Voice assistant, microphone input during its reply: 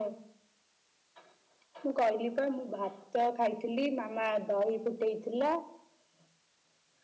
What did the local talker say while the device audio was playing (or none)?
none